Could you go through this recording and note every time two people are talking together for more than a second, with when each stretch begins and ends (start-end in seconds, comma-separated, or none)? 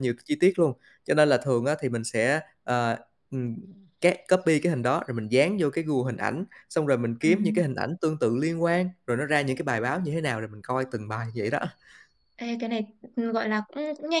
none